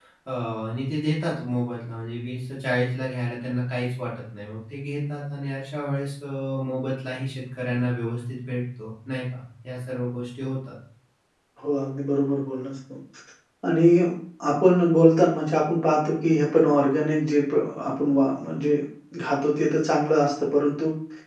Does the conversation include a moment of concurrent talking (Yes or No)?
No